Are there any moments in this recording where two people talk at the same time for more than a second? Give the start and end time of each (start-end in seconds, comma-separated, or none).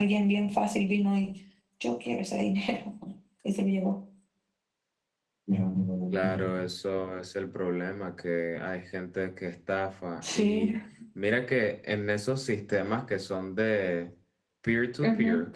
none